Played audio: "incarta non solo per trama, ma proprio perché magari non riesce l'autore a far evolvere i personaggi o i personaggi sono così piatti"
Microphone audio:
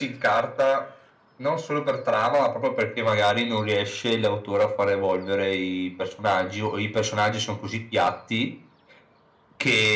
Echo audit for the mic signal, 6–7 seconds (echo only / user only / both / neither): echo only